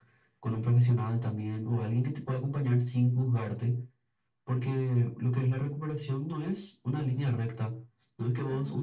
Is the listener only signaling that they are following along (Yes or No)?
Yes